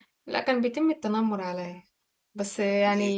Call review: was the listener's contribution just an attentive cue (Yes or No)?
Yes